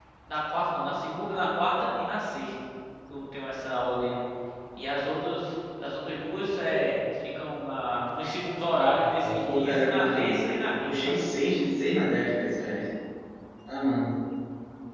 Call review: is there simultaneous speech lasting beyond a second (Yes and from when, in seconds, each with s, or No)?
Yes, from 9.0 s